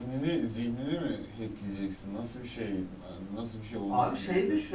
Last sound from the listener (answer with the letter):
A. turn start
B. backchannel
A